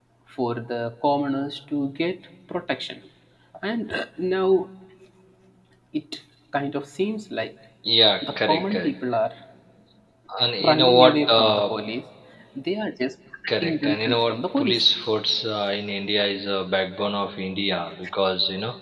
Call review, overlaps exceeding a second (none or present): present